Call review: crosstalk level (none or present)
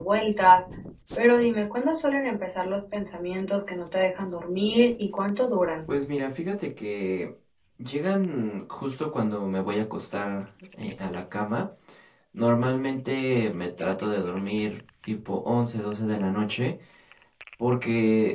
none